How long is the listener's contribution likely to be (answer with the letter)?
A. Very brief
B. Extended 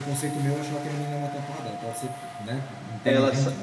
B